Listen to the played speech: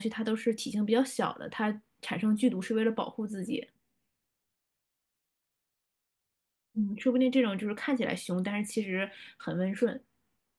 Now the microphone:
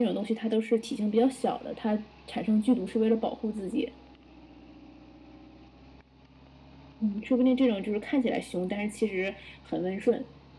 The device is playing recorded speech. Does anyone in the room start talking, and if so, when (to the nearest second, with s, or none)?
none